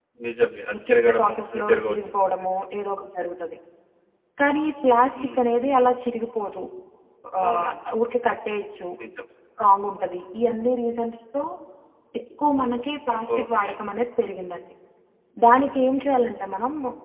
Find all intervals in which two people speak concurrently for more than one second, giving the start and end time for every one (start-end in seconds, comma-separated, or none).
0.7-2.0